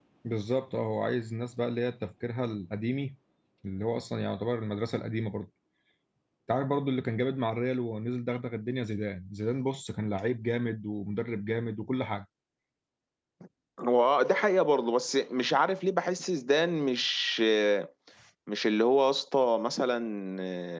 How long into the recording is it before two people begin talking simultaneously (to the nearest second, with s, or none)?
none